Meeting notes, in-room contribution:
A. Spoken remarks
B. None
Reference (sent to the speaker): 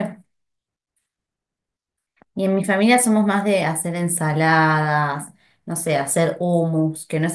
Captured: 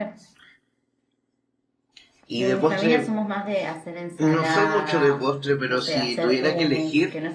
A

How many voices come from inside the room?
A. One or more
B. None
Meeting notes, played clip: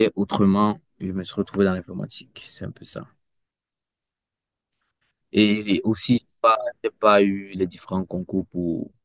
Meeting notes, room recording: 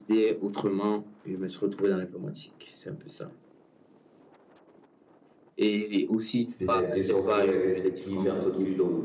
A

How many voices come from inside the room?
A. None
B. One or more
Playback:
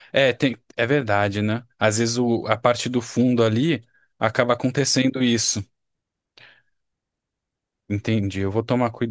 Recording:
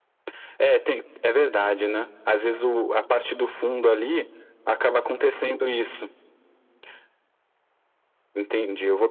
A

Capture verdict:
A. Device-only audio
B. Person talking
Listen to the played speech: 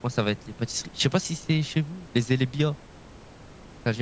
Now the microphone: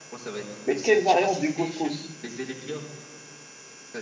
B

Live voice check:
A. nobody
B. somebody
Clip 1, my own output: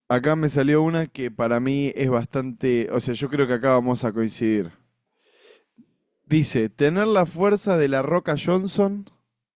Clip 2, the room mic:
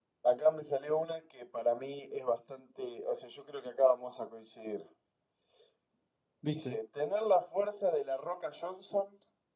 B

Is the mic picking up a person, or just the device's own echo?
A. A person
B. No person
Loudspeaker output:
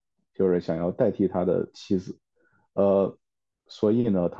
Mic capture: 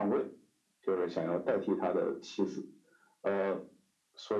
B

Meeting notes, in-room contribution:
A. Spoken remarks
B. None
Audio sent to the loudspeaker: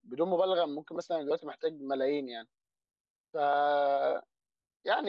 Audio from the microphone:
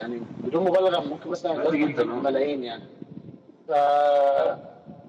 A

